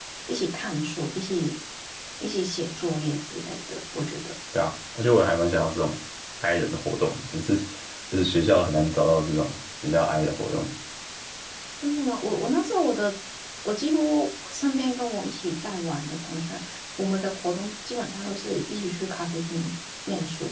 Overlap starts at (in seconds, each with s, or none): none